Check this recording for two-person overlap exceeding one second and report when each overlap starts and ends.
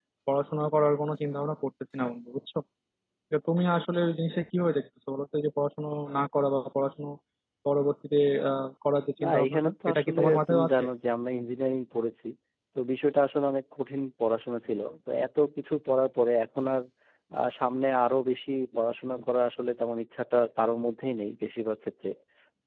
9.2-10.8

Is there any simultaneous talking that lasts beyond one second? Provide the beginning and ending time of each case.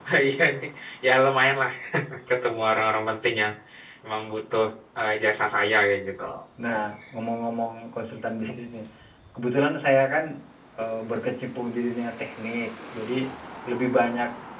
none

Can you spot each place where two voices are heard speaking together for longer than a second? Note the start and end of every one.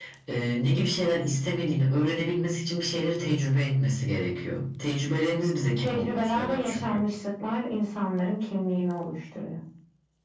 5.7-7.0

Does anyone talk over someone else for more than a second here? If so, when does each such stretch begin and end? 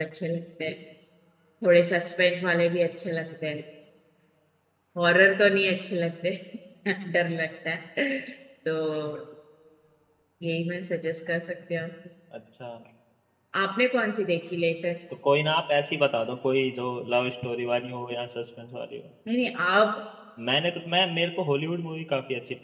none

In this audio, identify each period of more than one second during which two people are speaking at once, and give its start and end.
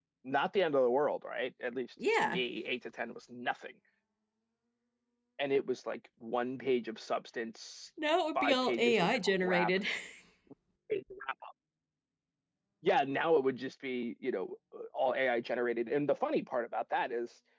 8.3-9.7

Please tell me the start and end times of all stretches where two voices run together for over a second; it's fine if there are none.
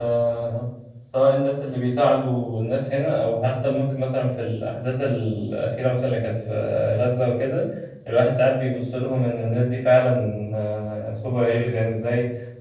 none

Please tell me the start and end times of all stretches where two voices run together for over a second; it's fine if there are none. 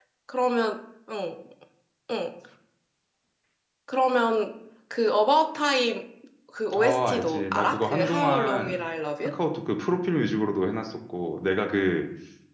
6.8-8.8

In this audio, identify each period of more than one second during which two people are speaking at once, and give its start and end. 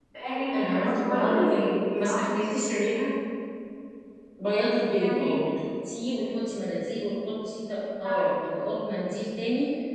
0.5-2.2

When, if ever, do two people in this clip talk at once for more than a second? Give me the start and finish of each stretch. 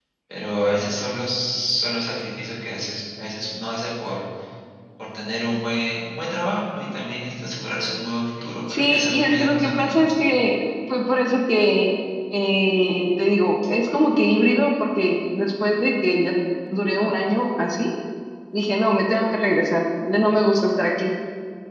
8.7-10.1

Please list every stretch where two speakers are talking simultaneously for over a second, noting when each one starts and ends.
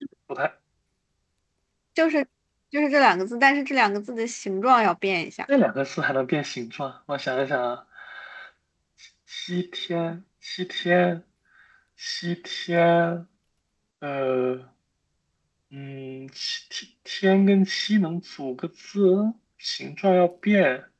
none

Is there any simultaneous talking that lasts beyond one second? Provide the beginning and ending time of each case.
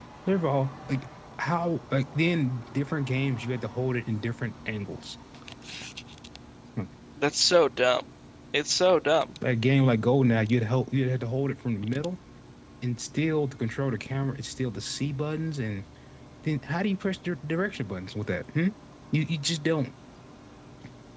none

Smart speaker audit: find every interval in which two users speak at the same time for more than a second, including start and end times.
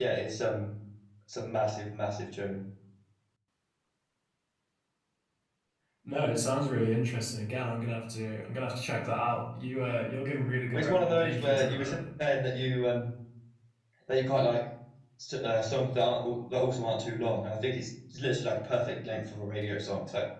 10.7-12.0

